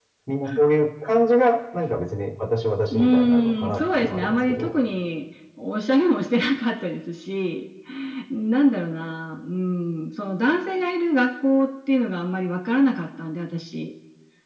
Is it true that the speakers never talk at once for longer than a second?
No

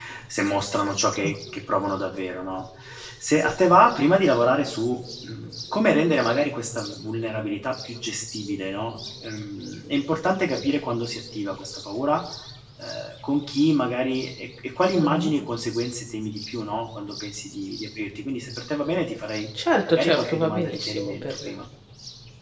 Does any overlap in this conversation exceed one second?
Yes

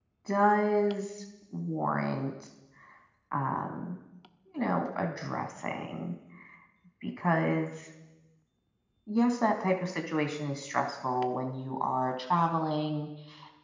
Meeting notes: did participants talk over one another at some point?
No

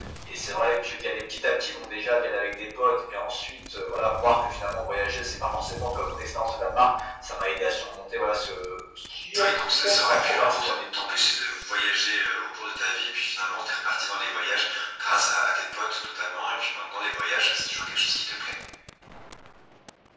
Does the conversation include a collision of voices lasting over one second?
Yes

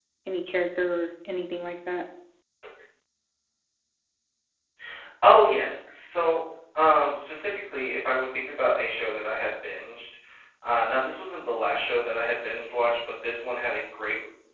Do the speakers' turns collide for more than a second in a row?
No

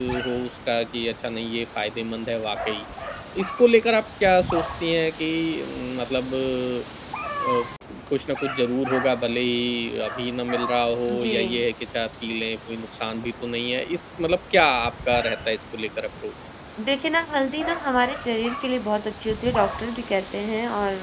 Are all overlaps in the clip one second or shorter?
Yes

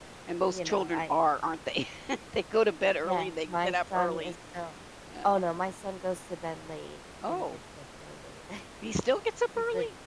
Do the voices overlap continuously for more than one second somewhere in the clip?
Yes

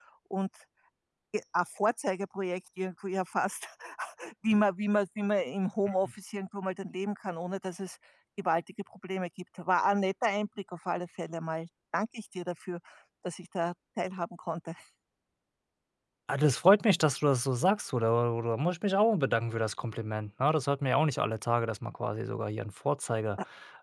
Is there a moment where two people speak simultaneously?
No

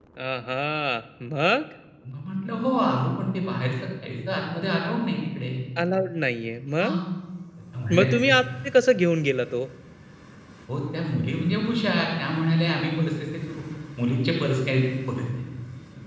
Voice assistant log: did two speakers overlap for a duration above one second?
No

